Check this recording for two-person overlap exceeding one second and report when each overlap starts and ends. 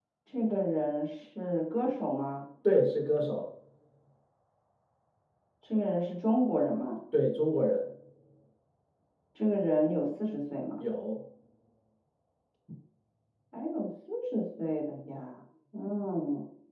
none

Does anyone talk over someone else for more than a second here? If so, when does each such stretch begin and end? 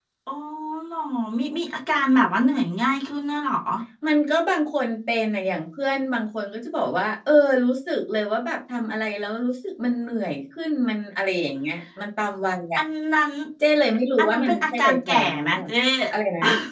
14.2-15.6

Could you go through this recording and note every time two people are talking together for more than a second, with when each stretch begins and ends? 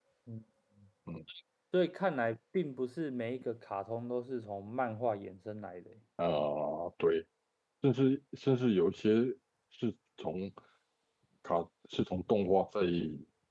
none

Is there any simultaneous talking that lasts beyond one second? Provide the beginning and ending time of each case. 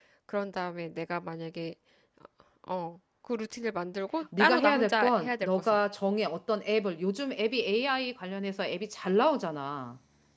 4.4-5.8

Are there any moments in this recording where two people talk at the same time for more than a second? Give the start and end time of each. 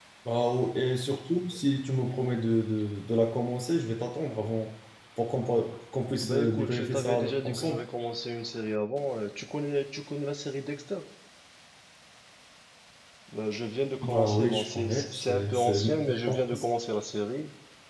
6.2-7.8, 14.0-16.6

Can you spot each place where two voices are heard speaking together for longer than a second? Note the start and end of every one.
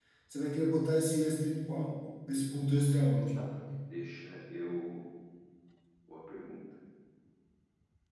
none

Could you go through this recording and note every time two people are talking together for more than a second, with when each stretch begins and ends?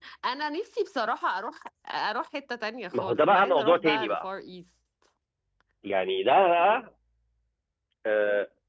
2.9-4.2

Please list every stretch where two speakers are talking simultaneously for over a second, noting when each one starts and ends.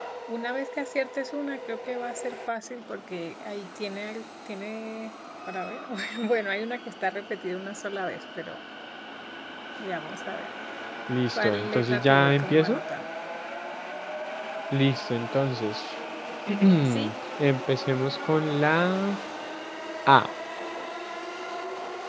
11.4-12.8

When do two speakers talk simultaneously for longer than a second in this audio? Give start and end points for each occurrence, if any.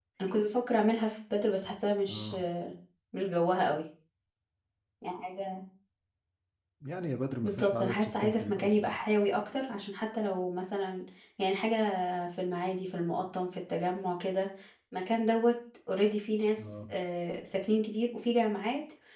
7.4-8.9

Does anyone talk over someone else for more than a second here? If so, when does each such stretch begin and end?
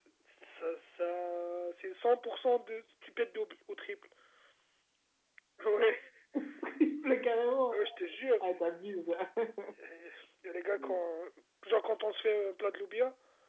none

